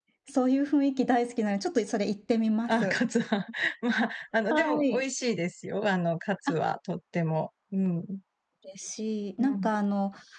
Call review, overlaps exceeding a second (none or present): none